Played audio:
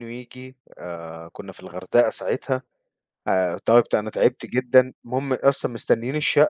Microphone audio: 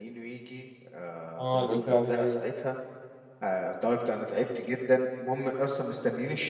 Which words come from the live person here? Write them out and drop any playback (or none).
آه اللي قُلت لي عليها أيوه،